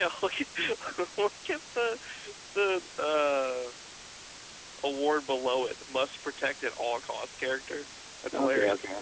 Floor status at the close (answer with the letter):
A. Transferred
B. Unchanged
A